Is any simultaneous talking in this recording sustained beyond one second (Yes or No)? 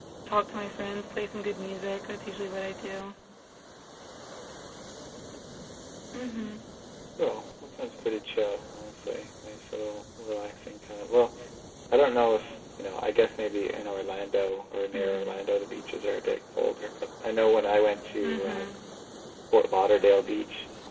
No